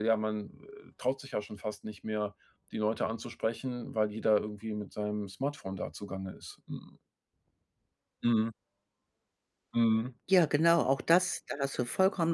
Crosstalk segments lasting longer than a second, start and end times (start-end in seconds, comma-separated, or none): none